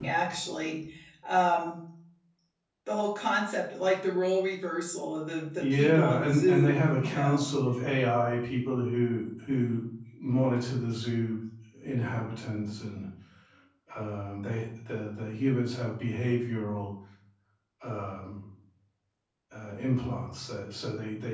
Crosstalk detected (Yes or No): Yes